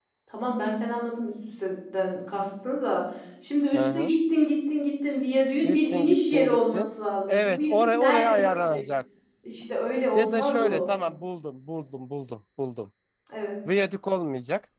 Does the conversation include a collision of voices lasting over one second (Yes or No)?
Yes